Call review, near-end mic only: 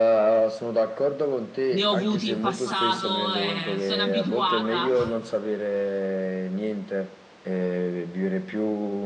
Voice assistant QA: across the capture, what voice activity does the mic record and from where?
both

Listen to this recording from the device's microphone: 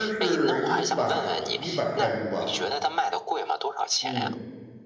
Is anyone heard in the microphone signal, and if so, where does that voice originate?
both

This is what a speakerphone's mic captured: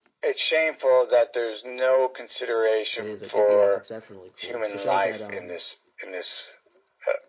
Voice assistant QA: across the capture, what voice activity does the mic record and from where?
both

